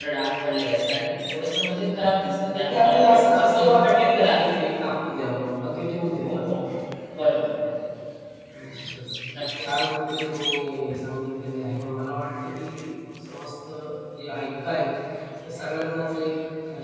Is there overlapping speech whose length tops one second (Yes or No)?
Yes